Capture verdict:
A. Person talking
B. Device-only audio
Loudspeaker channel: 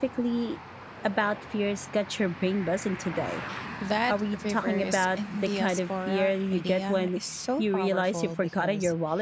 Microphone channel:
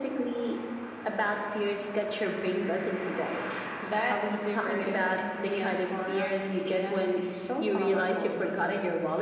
B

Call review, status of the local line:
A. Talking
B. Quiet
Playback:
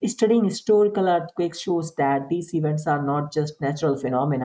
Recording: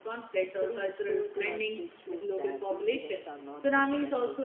A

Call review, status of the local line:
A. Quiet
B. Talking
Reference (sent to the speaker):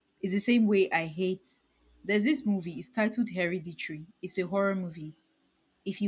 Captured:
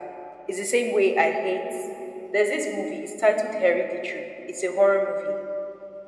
A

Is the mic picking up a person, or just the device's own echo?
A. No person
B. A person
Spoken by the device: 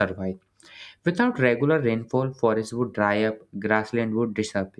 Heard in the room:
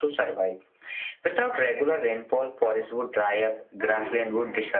B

